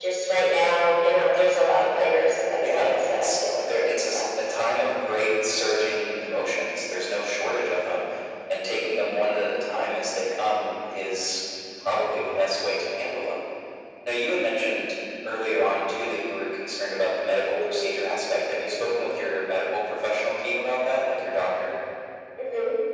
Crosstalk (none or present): present